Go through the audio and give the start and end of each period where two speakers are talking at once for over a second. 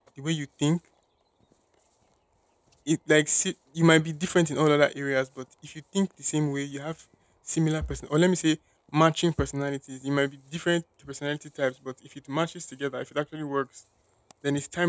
none

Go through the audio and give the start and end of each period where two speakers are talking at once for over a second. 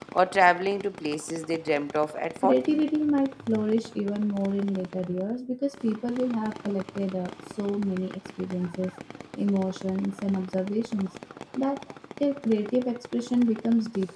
none

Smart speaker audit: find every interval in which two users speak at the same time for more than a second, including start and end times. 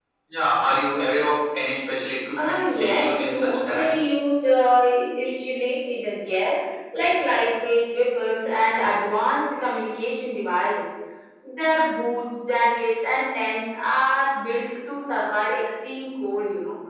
2.4-4.1

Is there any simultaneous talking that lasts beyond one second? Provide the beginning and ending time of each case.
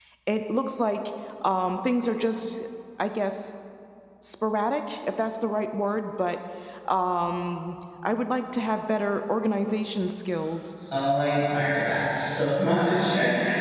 none

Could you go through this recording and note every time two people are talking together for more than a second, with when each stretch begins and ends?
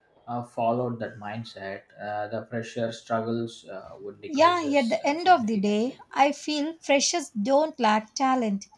4.4-5.9

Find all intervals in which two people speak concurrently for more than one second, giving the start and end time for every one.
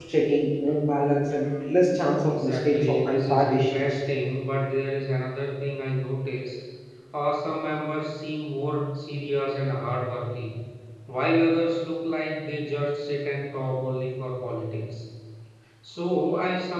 2.2-4.0

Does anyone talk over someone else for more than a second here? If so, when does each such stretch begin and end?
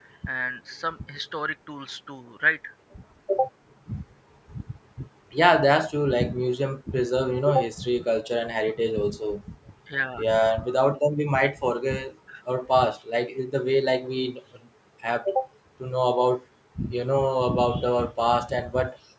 none

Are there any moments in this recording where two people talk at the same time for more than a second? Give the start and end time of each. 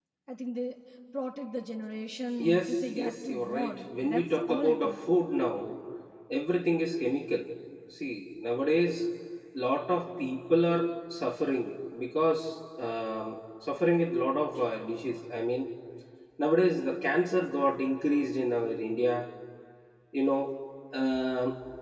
2.4-5.0

